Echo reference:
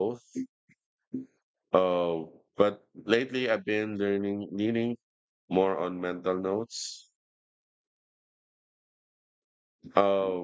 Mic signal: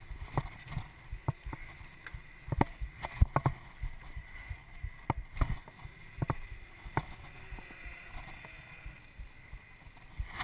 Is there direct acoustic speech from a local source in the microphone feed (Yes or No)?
No